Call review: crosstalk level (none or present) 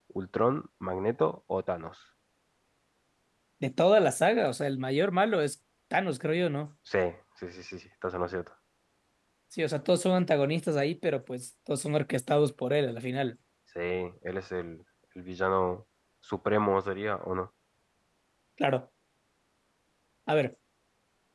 none